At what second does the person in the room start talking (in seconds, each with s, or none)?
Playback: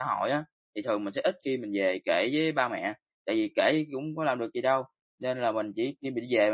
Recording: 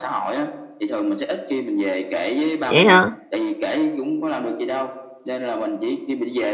2.7 s